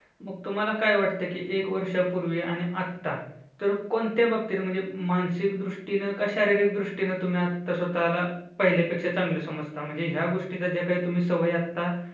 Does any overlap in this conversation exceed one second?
No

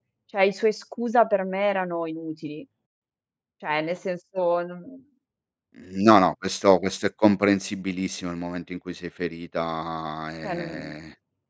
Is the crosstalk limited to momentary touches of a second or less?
Yes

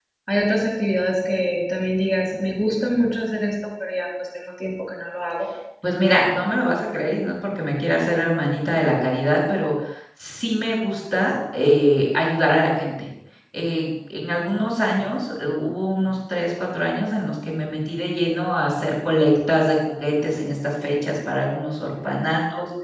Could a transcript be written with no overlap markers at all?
Yes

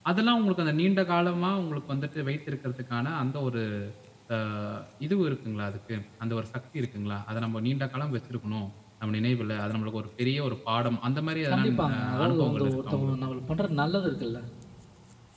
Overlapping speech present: Yes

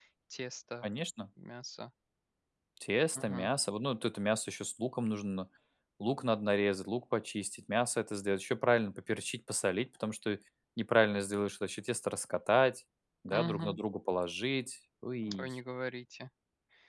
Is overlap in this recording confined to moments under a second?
Yes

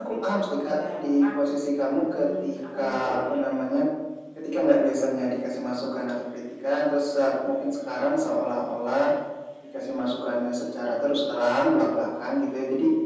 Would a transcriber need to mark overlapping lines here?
Yes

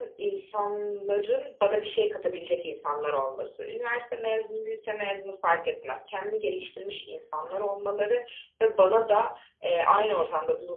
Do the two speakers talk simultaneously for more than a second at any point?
No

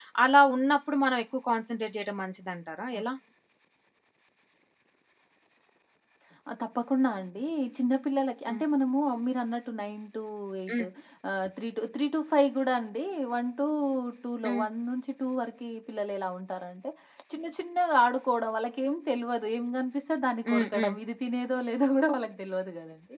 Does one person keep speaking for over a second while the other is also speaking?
No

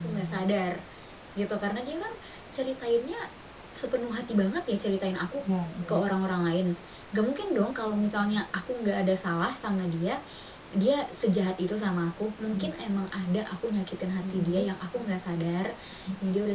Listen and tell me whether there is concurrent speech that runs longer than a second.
No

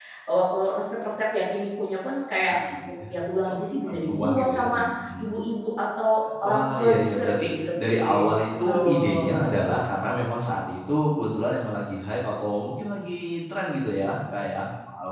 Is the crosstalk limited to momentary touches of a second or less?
No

